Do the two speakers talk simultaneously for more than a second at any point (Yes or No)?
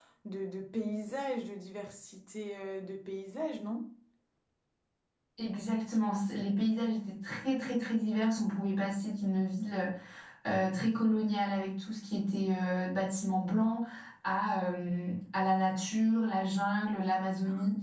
No